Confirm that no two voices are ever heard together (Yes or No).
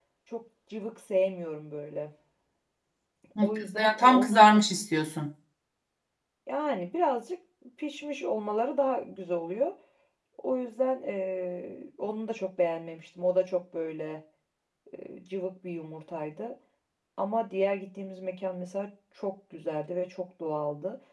No